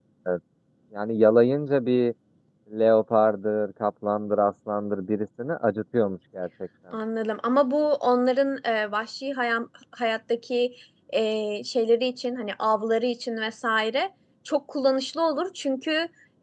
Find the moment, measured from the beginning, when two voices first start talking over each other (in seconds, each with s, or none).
none